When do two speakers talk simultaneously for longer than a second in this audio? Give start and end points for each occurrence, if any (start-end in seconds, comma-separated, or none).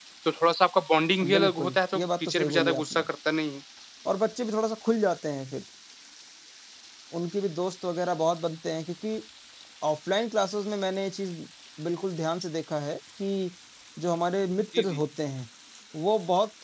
1.2-3.1